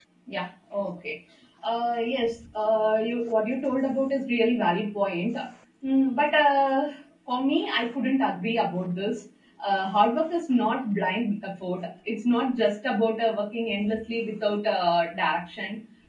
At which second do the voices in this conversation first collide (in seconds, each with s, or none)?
none